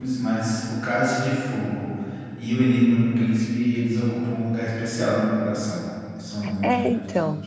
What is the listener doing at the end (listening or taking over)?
taking over